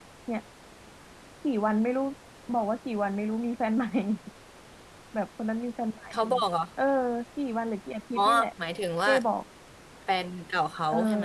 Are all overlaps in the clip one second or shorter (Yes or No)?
Yes